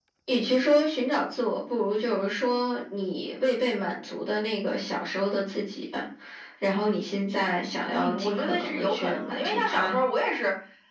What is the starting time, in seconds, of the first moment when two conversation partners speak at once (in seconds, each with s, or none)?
7.9 s